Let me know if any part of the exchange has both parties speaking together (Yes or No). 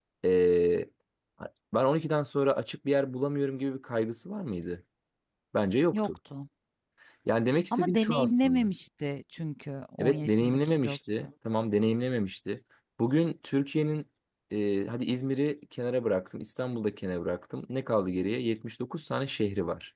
Yes